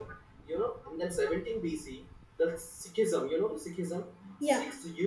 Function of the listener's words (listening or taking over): listening